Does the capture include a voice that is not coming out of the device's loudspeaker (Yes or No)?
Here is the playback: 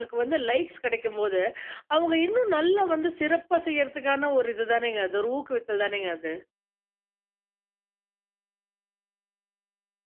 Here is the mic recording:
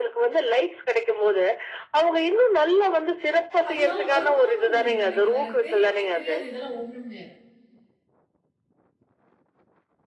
Yes